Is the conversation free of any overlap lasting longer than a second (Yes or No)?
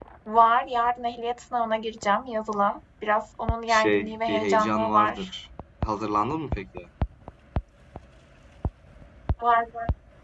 No